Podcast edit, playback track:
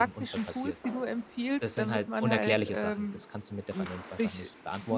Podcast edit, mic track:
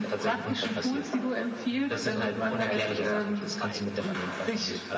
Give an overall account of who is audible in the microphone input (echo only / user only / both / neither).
both